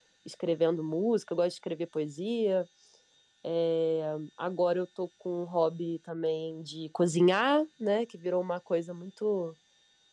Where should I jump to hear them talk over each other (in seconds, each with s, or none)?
none